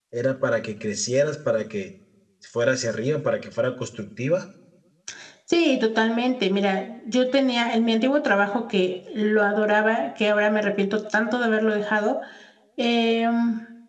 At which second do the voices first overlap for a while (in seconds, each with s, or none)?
none